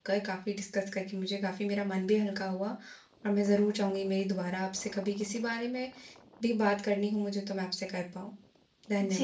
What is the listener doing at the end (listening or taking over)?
taking over